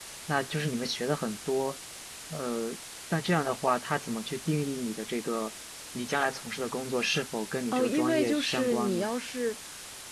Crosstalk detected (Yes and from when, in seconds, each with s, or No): Yes, from 7.7 s